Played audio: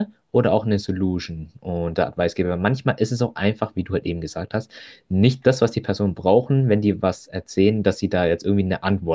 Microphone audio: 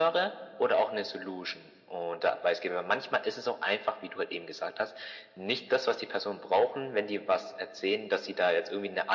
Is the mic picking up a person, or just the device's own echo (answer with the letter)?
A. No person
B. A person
A